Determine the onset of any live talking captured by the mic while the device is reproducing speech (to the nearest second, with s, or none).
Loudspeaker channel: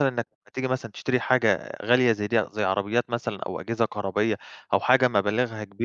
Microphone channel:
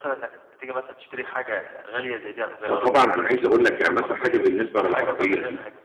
3 s